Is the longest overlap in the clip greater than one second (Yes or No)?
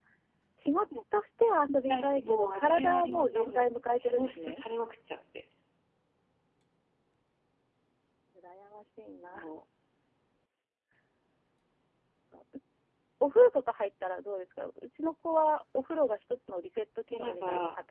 Yes